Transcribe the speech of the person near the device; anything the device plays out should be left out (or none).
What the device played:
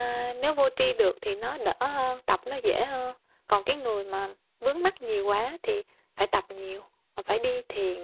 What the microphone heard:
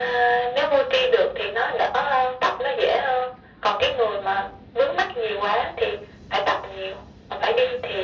none